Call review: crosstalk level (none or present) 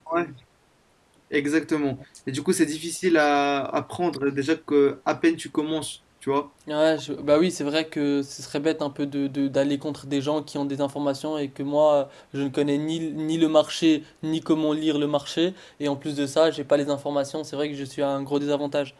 none